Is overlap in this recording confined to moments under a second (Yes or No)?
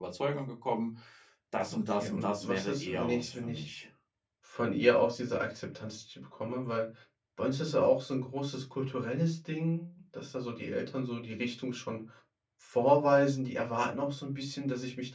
No